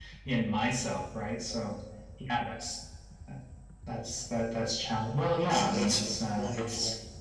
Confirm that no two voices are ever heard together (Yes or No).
No